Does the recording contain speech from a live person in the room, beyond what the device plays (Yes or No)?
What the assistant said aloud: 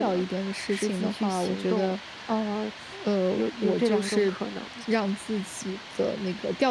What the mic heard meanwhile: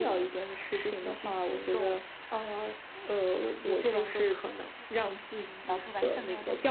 Yes